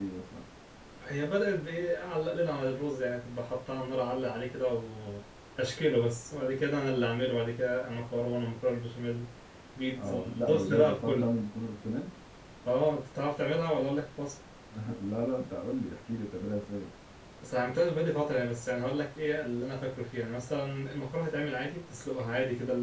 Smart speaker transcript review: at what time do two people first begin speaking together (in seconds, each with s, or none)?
10.0 s